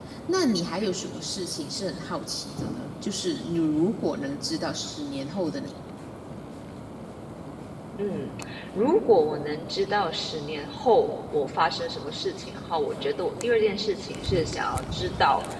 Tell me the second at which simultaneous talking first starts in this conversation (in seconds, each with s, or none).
none